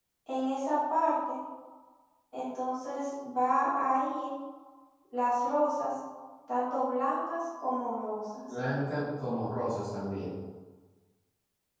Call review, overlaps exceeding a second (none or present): none